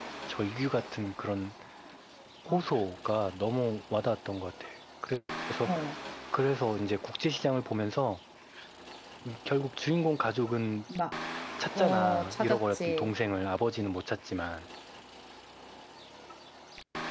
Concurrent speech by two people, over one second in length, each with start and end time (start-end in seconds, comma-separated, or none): 11.8-13.1